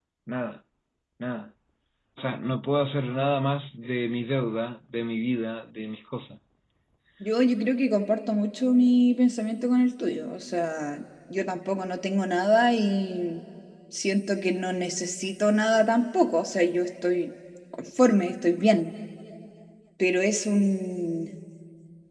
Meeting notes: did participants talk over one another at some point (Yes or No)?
No